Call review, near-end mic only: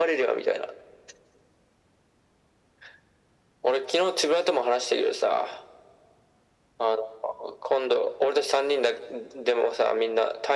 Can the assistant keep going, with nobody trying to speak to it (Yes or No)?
Yes